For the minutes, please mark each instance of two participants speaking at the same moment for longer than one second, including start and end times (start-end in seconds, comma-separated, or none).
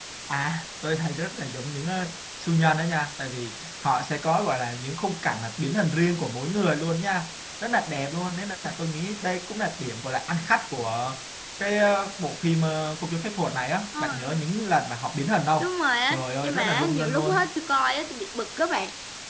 16.1-17.5